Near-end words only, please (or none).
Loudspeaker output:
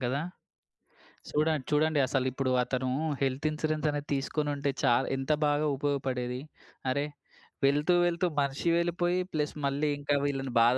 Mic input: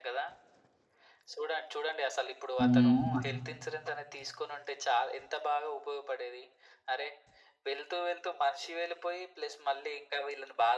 హ్మ్. అస్